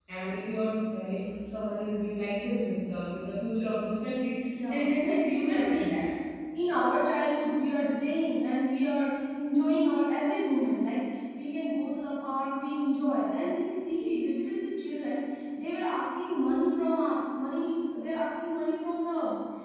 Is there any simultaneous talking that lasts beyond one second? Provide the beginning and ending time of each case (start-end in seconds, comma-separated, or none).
4.7-5.9